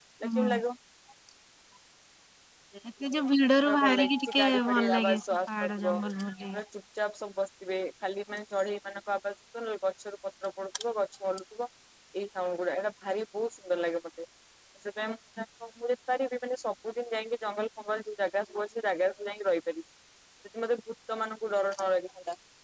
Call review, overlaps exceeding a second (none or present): present